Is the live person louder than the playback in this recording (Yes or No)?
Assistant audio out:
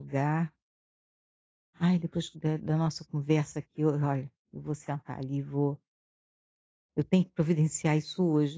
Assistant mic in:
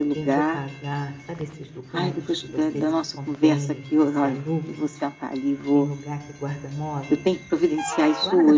No